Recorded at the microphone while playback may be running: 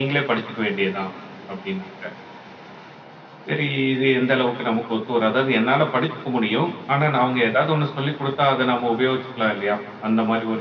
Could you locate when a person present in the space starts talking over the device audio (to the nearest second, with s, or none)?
none